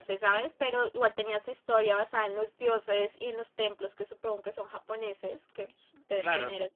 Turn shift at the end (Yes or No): Yes